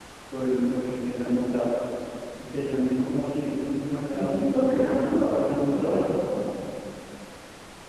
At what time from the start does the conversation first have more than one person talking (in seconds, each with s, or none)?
4.1 s